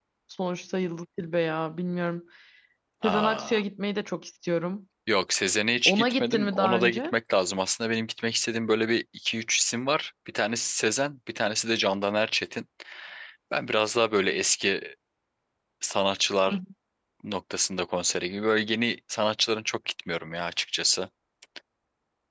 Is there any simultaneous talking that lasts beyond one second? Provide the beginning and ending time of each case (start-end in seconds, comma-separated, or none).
5.9-7.1